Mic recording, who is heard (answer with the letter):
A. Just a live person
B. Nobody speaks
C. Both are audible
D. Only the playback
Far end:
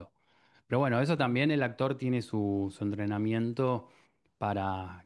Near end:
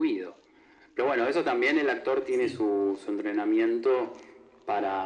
C